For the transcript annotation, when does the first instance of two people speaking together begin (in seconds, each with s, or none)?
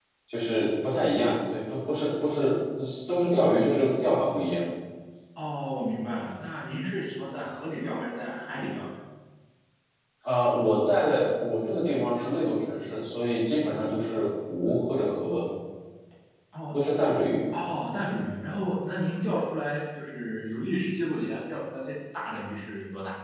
none